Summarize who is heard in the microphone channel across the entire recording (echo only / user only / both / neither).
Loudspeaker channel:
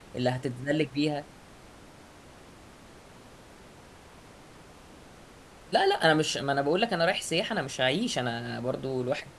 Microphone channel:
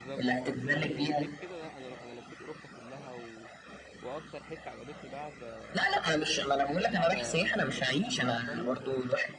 both